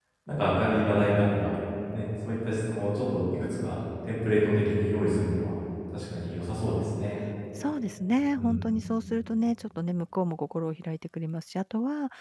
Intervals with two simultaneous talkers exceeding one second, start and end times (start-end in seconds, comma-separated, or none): none